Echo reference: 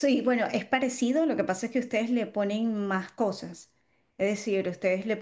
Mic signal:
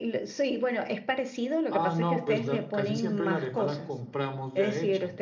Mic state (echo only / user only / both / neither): both